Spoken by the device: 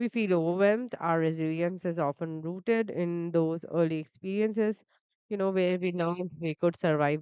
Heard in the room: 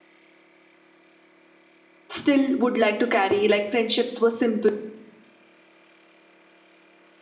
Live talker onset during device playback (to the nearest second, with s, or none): 2 s